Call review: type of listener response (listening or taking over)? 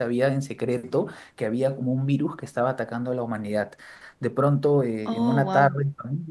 listening